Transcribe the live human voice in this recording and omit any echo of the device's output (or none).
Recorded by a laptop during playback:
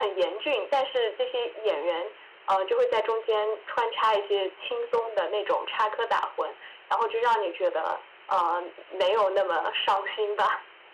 none